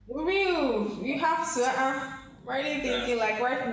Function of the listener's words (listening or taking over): listening